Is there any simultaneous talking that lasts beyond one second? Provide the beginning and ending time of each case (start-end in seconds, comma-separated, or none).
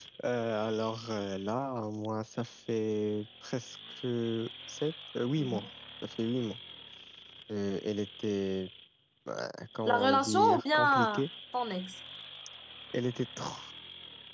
9.9-11.2